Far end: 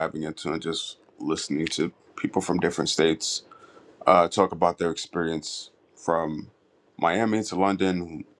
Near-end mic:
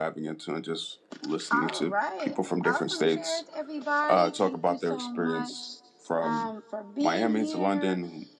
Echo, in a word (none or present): present